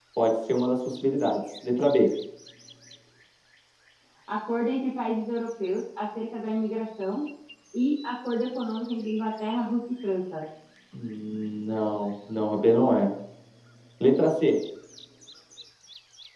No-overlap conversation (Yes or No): Yes